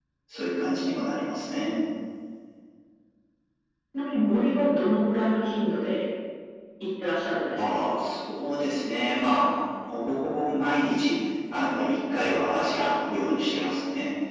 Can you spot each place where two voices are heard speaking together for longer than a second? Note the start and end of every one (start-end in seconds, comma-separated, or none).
none